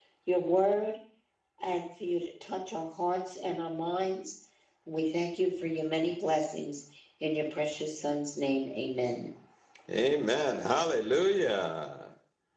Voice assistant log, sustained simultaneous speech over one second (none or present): none